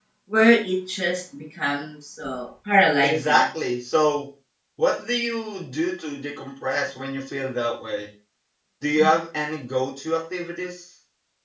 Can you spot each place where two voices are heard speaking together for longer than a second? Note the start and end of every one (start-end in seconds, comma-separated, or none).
none